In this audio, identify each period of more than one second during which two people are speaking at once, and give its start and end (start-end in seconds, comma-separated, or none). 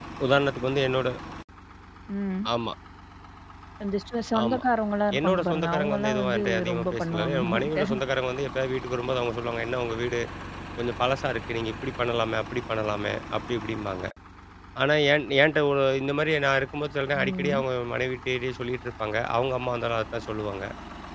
5.2-7.8